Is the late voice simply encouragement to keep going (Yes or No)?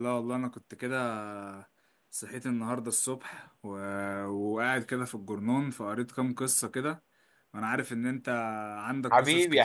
No